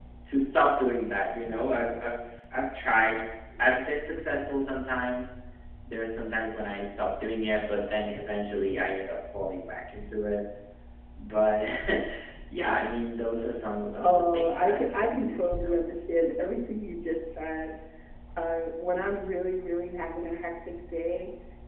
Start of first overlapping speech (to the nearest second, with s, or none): 14 s